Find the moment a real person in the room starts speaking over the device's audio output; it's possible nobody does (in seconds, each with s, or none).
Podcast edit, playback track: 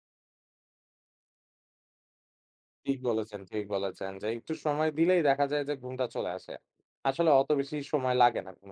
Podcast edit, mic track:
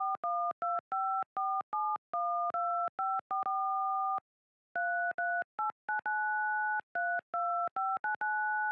none